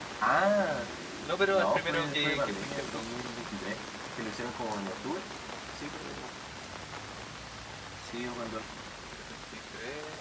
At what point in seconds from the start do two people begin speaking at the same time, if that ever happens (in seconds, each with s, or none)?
1.5 s